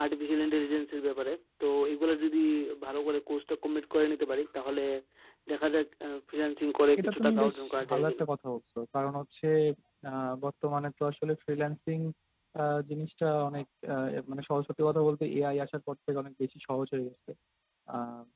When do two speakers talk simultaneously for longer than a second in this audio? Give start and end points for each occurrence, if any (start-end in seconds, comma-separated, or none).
7.0-8.2